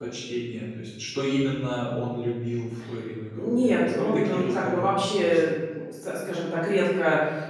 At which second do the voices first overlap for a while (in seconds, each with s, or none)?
3.3 s